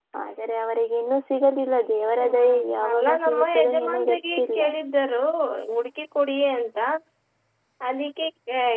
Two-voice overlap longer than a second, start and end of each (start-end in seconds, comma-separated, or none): 2.2-4.6